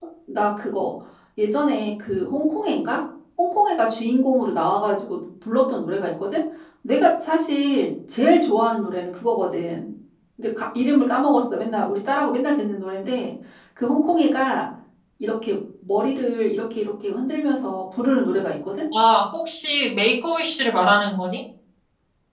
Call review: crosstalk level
none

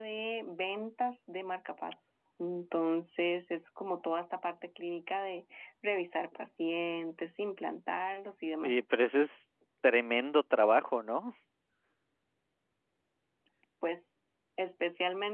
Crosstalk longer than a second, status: none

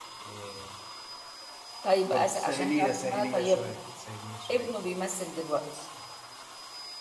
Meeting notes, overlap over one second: present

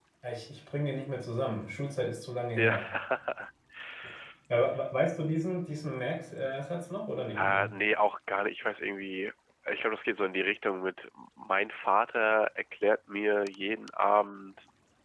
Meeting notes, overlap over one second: none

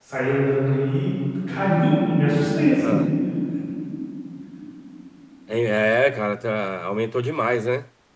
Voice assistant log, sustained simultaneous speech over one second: none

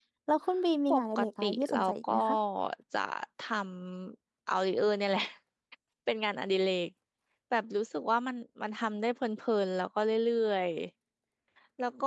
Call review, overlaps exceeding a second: present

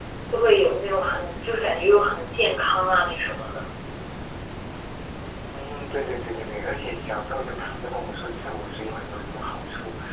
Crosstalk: none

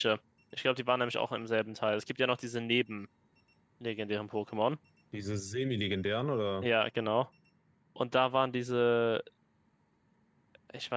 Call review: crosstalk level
none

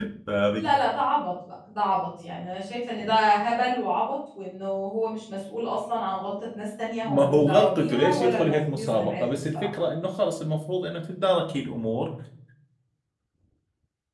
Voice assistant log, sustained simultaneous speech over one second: present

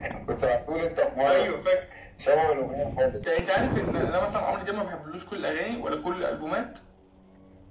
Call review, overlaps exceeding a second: none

